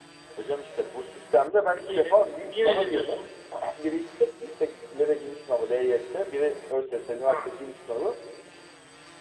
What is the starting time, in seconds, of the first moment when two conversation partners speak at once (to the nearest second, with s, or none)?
2 s